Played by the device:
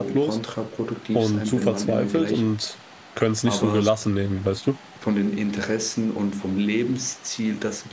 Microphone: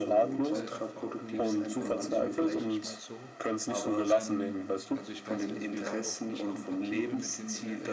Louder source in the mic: echo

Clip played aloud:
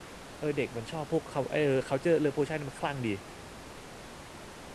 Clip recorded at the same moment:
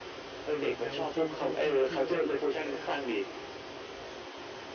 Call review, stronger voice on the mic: echo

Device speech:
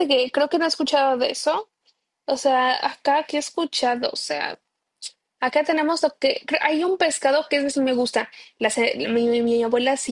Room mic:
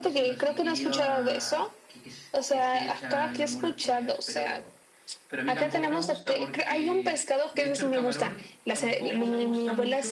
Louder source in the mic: echo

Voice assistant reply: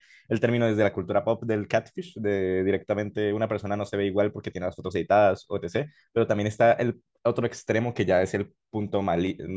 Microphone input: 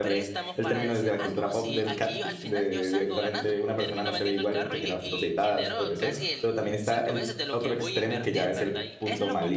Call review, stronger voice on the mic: echo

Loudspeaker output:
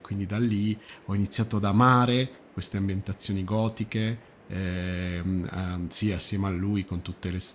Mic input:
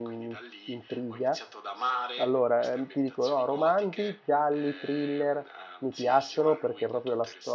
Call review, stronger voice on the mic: user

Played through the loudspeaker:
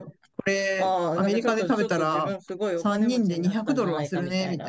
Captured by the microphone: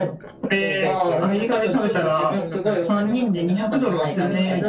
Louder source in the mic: echo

